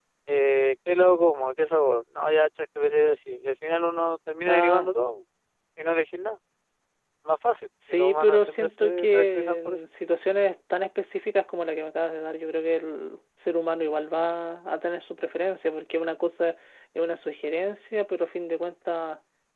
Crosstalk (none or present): present